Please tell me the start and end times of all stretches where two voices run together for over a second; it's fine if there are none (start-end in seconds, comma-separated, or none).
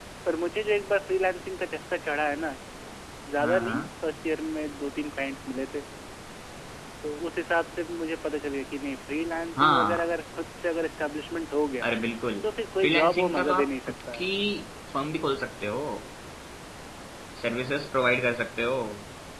12.8-14.2